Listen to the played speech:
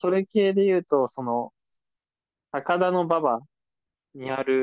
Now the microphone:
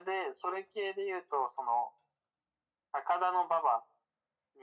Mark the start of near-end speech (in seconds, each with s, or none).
none